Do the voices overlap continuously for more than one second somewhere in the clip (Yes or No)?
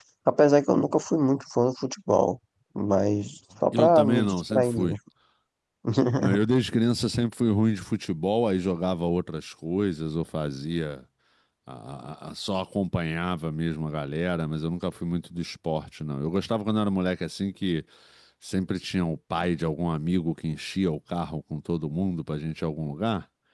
Yes